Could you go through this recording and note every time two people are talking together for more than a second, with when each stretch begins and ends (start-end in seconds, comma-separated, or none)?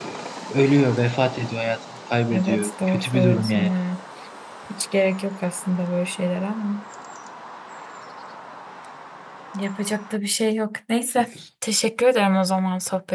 2.3-3.7